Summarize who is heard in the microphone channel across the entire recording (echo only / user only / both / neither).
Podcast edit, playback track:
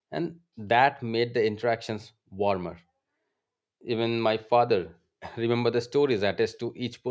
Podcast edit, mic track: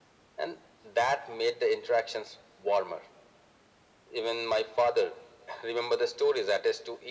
echo only